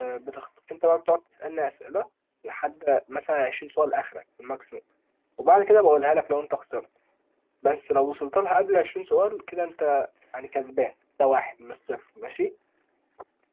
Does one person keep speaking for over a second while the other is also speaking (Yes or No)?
No